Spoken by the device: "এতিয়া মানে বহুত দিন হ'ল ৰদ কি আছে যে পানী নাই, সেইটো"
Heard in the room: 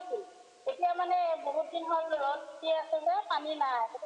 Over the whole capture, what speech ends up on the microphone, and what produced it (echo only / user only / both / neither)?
echo only